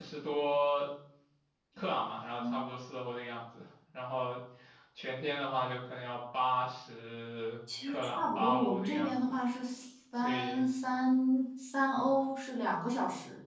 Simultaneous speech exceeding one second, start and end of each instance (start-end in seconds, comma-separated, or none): 7.9-9.4